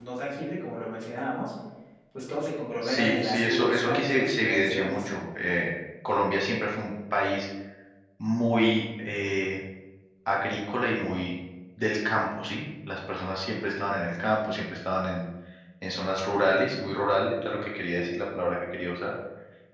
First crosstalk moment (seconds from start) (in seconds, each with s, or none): 2.8 s